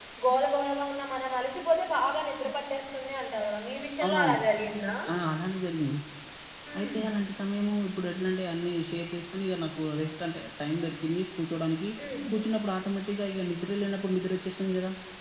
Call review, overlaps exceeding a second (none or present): none